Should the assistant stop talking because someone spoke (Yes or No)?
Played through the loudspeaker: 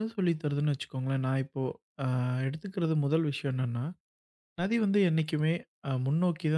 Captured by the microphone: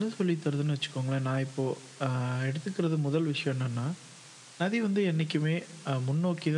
No